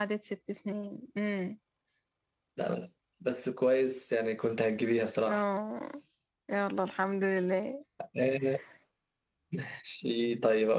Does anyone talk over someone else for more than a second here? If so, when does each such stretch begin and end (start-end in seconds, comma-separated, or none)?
none